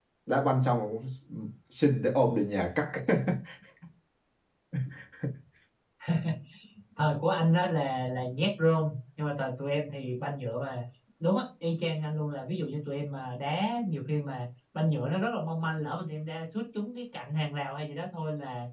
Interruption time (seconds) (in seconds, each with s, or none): none